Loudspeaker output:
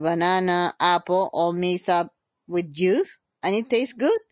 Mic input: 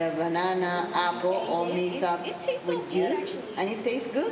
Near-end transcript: and then when you ate it it it tastes so good actually

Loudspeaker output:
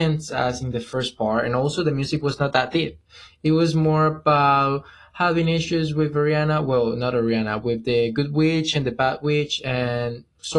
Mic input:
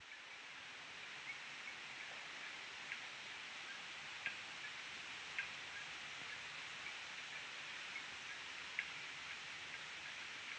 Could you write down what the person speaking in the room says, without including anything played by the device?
none

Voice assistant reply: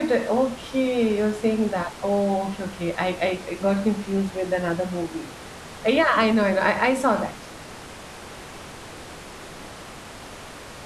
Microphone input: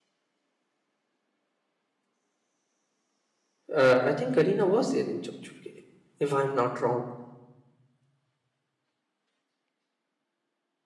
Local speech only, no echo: Ah, I think Kareena was there in Chup Chupke, if I'm not wrong.

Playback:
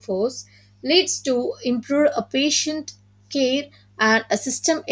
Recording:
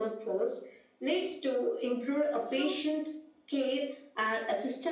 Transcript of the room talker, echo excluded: so

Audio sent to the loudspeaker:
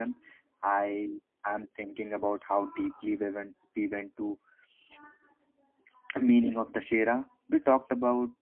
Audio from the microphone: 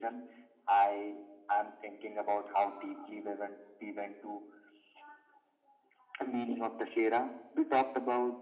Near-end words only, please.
none

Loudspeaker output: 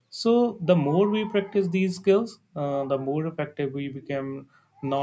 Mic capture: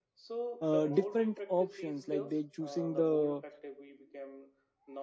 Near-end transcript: uh, different options like they choosing the

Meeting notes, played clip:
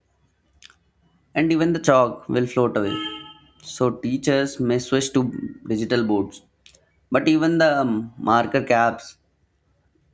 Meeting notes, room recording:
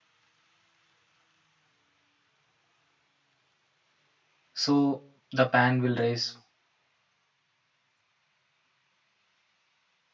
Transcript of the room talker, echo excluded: So the pan will rise

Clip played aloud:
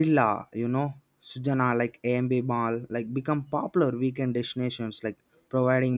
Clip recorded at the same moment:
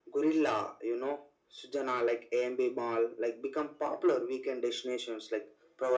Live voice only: none

